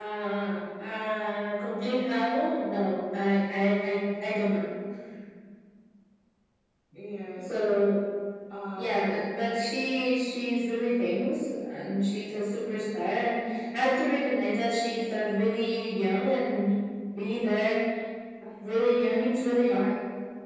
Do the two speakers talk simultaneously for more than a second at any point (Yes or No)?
No